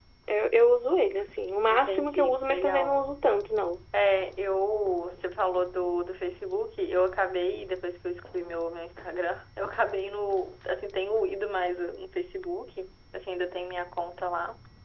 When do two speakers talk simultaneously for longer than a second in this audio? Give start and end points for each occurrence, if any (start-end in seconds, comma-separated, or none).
1.7-3.0